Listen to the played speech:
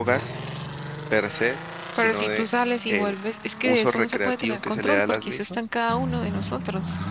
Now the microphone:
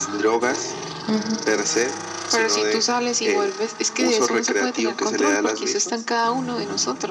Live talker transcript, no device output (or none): Ujú,